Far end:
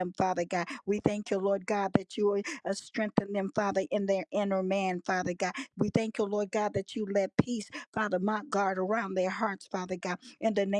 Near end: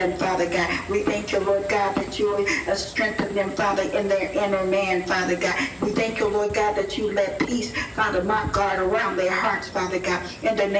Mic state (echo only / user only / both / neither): echo only